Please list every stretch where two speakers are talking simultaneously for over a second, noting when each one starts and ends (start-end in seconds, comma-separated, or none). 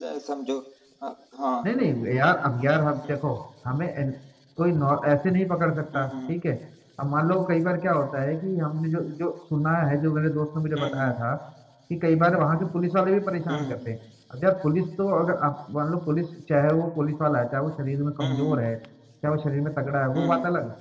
none